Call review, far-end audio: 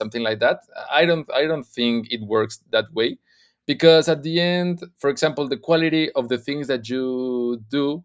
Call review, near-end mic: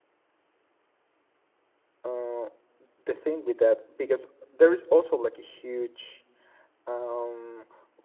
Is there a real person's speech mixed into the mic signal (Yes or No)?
Yes